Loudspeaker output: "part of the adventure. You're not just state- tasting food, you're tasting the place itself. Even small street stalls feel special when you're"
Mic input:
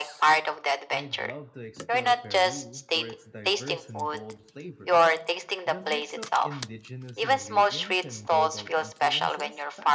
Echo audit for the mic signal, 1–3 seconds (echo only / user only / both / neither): both